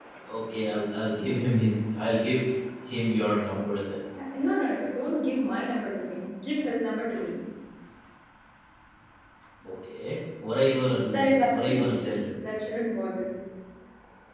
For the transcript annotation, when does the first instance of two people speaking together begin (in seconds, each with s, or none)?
11.0 s